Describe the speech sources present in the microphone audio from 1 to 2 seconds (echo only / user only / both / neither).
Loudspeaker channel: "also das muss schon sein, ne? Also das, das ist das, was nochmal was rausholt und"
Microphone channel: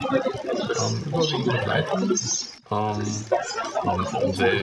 both